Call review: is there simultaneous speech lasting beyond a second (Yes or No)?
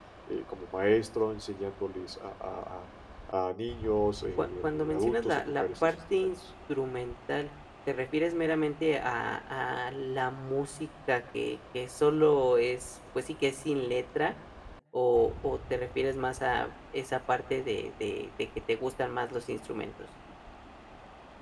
Yes